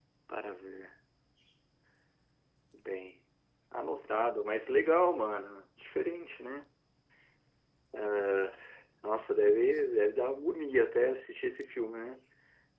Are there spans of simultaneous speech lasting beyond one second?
No

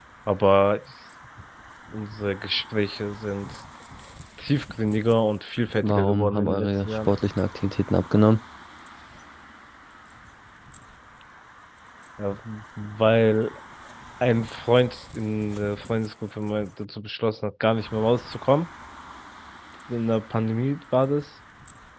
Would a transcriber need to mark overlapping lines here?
Yes, from 5.8 s

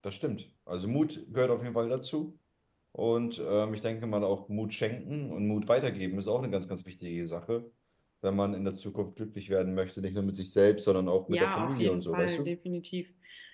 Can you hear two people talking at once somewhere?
Yes, from 11.3 s

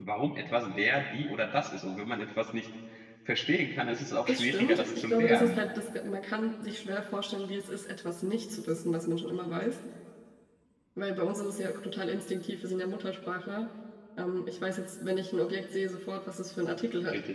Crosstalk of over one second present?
Yes, from 4.3 s

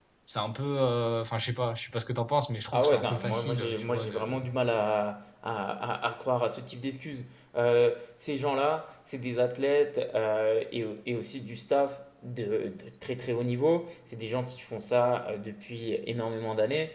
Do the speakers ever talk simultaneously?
Yes, from 2.7 s

